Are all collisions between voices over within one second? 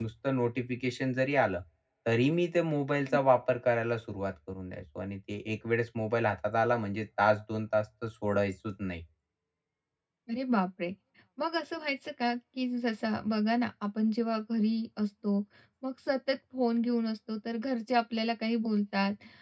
Yes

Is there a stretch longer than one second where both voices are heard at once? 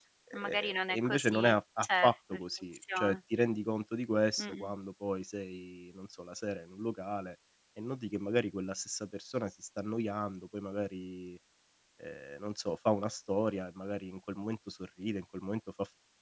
Yes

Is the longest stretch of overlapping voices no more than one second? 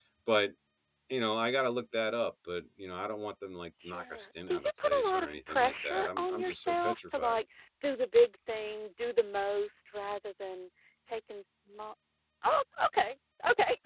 No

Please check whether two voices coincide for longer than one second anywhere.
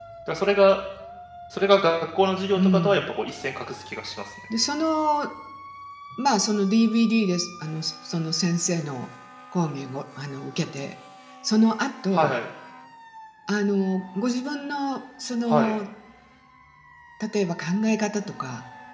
No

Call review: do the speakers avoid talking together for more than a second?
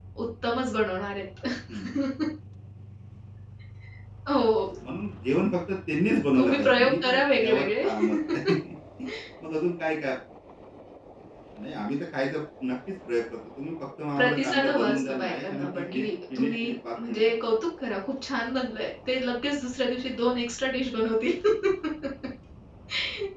No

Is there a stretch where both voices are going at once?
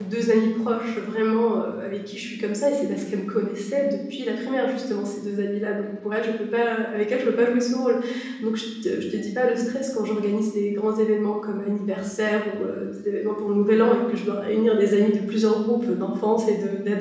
No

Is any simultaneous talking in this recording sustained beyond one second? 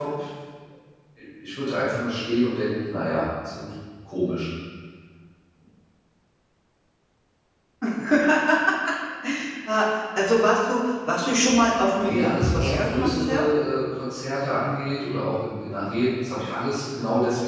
Yes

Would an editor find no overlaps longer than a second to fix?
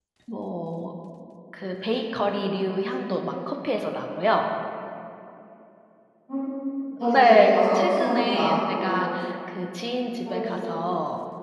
No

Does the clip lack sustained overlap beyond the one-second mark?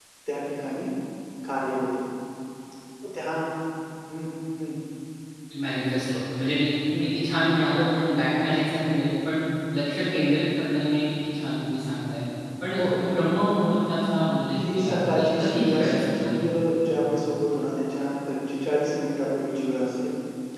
No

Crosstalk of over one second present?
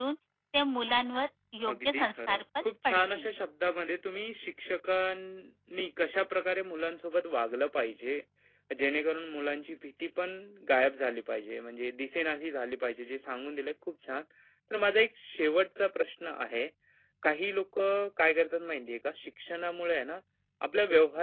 Yes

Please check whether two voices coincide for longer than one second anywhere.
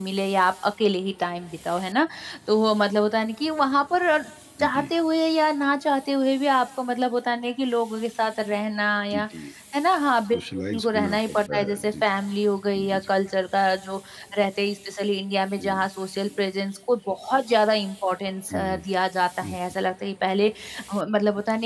Yes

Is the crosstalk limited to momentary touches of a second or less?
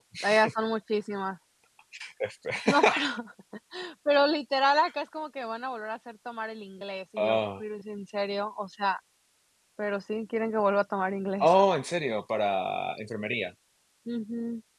Yes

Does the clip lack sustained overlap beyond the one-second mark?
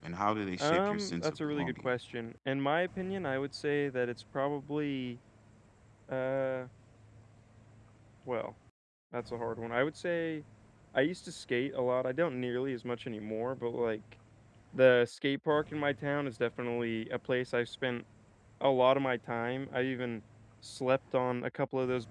No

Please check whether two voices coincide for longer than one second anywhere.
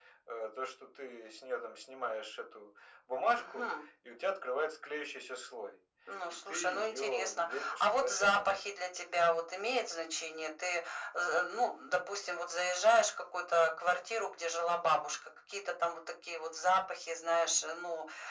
Yes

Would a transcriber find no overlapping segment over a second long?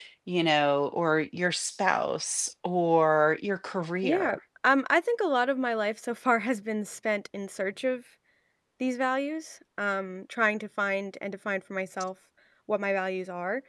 Yes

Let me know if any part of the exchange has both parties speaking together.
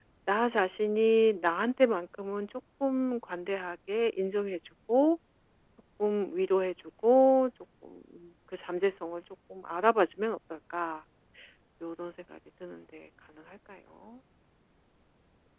No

